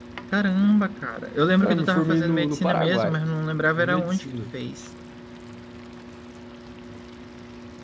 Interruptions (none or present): present